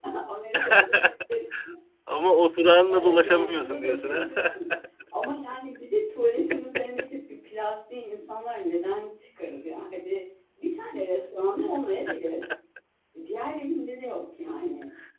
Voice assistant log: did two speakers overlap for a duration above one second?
Yes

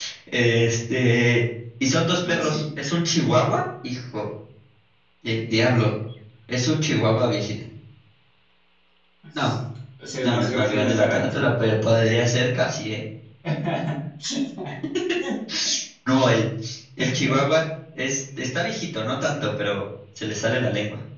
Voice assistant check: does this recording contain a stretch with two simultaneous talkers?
Yes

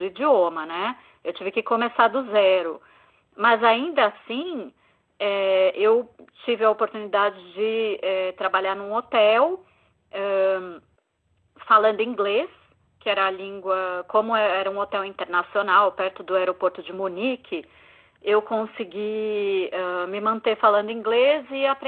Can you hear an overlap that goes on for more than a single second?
No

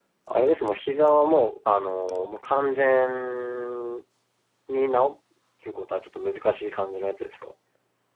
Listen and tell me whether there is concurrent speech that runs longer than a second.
No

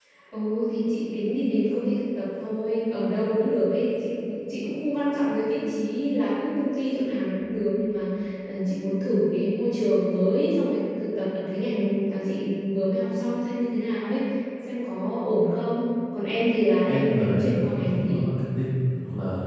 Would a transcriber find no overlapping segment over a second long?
No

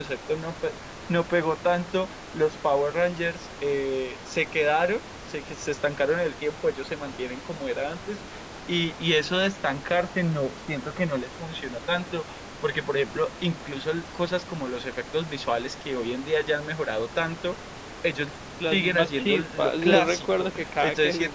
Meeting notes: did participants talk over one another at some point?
Yes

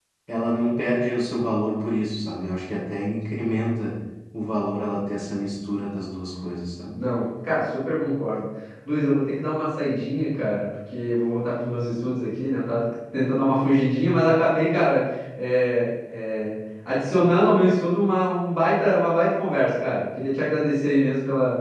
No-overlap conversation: Yes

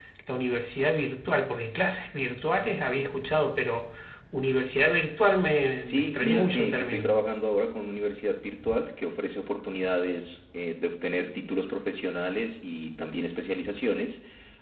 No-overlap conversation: No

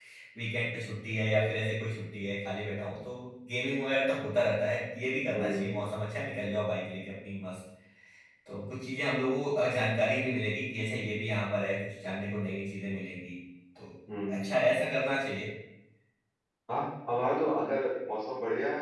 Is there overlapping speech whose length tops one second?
No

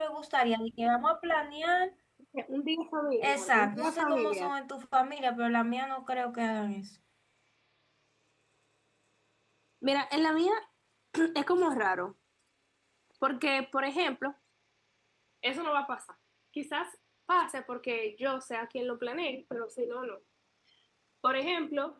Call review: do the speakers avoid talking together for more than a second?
No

